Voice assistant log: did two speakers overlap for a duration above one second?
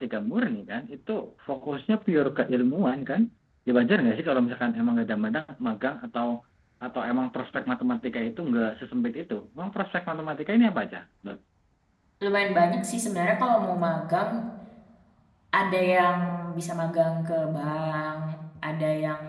No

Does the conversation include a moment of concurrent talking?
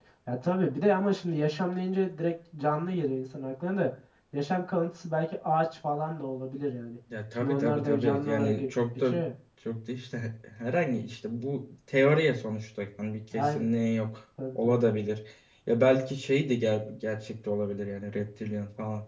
Yes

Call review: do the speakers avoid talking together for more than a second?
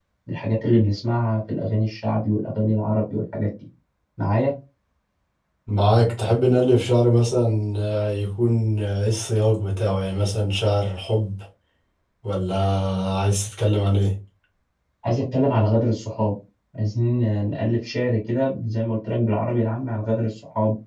Yes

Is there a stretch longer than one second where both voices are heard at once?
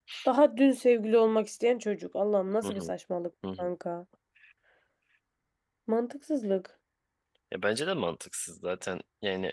No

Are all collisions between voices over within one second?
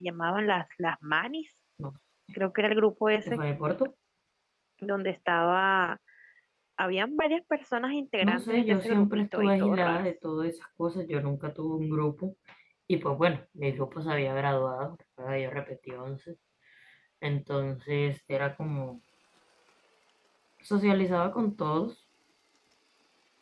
No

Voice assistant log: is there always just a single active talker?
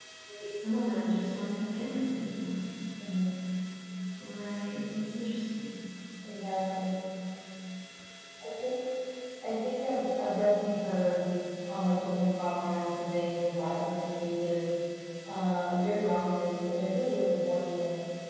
Yes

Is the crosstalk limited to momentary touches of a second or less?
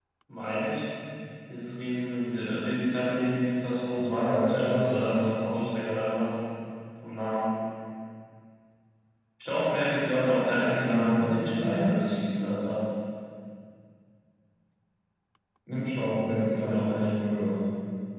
No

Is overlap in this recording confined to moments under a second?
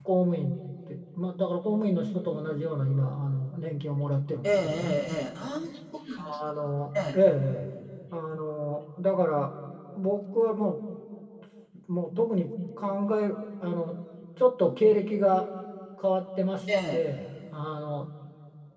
Yes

